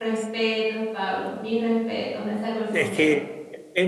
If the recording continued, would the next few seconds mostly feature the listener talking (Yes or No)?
Yes